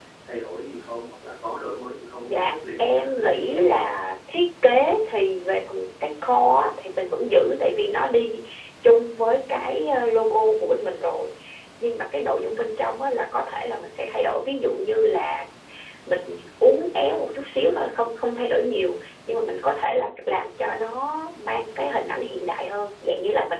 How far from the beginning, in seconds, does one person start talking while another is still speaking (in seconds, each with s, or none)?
2.2 s